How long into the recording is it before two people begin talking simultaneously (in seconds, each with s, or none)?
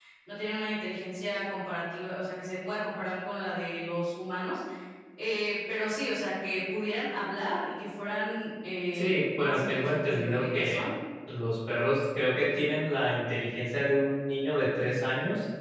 8.9 s